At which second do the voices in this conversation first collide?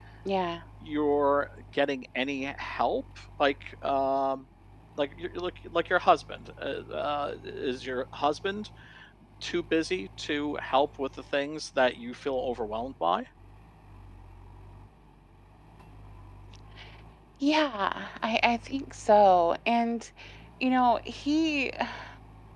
none

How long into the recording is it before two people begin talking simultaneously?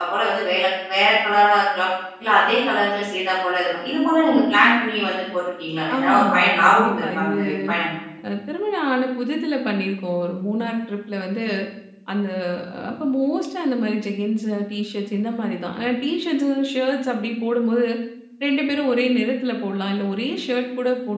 6 s

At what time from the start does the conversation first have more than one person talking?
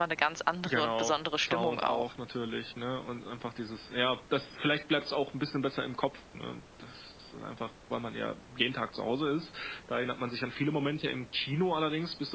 1 s

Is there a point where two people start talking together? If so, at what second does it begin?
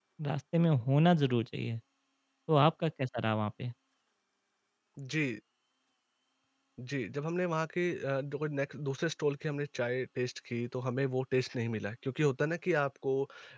none

